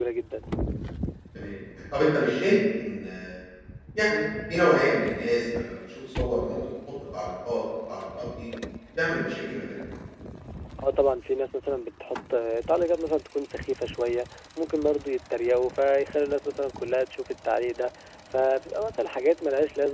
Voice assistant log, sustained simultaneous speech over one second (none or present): none